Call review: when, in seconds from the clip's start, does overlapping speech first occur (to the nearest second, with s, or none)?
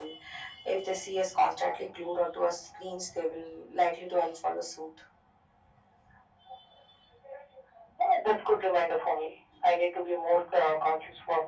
none